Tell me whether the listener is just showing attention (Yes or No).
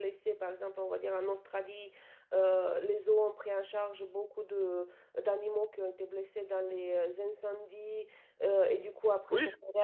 Yes